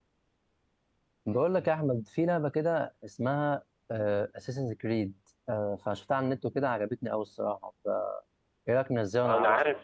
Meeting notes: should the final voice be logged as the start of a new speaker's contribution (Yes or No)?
Yes